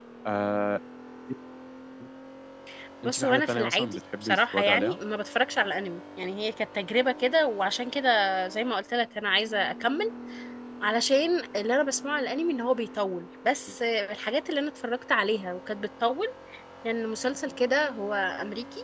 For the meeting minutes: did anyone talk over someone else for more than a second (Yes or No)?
Yes